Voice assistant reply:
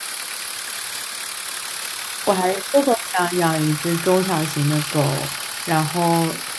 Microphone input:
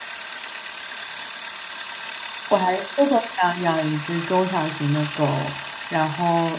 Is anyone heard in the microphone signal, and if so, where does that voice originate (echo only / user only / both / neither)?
echo only